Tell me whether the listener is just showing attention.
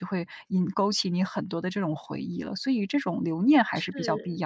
No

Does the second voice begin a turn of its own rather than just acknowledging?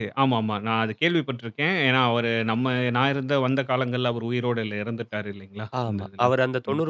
Yes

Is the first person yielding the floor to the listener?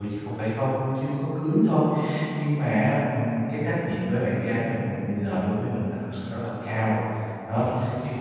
No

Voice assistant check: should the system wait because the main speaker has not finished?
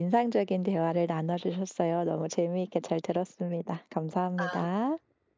No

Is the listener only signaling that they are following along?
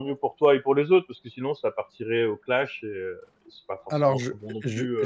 No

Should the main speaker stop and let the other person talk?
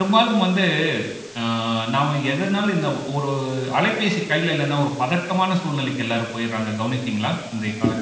Yes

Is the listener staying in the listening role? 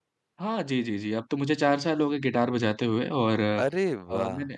Yes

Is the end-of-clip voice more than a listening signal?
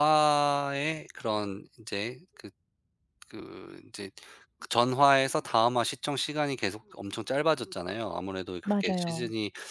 No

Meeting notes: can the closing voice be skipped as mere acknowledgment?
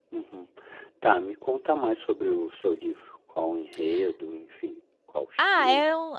No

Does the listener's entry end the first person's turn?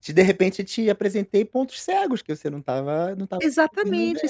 Yes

